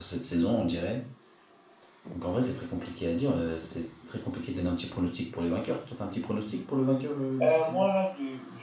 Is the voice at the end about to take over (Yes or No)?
Yes